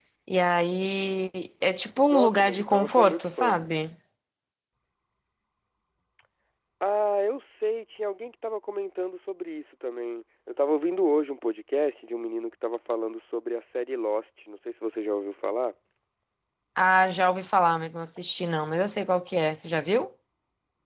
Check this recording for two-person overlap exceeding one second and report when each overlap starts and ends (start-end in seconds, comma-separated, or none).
2.1-3.6